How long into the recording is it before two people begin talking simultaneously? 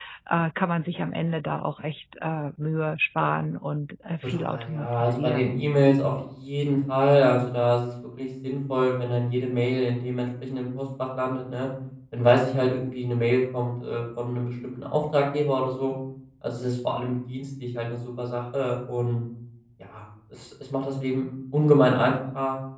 4.2 s

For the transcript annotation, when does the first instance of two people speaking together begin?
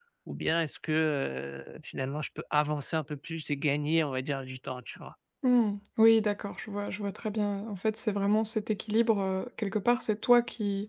none

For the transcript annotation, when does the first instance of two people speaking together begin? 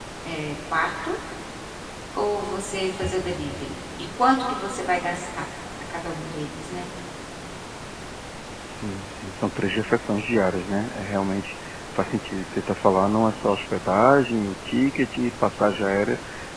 none

